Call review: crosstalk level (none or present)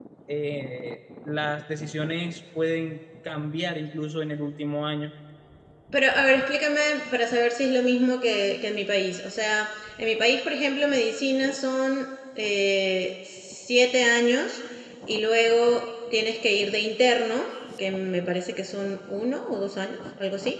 none